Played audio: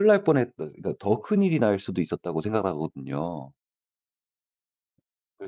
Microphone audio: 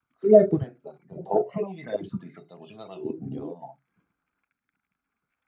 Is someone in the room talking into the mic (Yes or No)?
No